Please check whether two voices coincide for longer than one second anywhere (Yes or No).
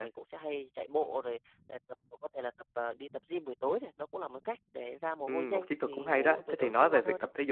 Yes